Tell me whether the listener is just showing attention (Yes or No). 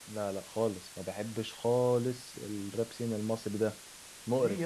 No